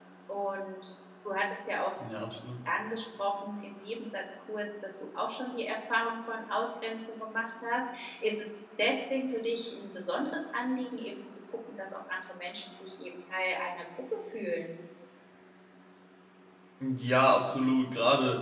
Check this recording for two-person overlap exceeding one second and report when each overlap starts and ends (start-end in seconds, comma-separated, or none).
none